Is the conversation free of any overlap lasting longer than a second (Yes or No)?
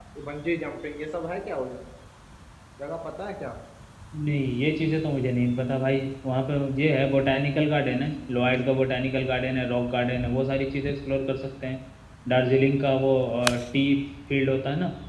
Yes